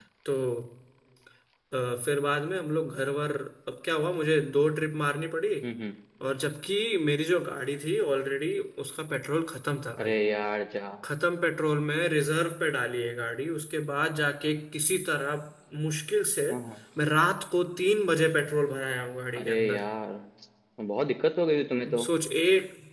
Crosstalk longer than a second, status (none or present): none